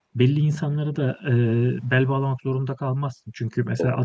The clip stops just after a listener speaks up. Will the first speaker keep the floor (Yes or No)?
Yes